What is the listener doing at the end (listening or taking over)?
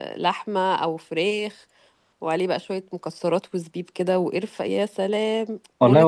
taking over